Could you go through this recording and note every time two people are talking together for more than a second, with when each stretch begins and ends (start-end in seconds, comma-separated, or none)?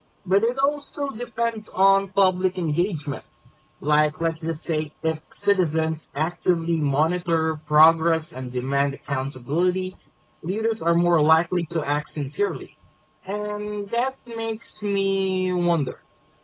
none